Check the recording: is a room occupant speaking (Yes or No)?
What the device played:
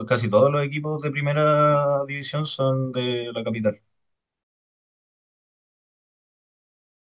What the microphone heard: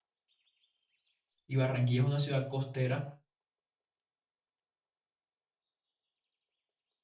Yes